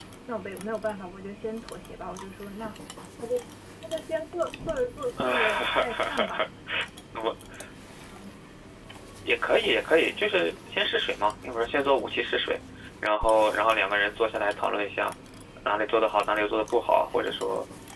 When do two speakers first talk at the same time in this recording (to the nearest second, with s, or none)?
5 s